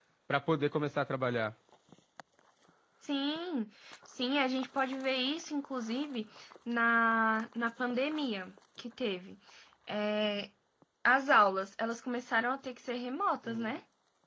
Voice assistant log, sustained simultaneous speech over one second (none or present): none